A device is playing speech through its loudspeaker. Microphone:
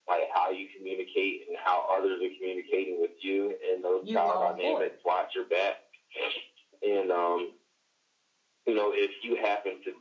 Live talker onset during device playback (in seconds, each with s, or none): 4.0 s